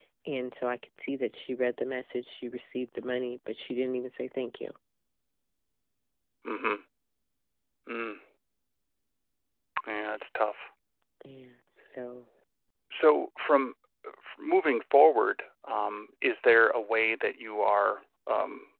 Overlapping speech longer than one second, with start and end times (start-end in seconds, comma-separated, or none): none